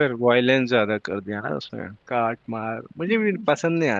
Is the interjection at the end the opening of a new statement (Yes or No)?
No